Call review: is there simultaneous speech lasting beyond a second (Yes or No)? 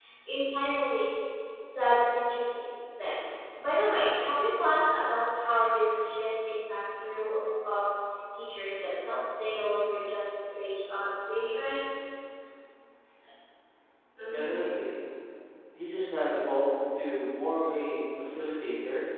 No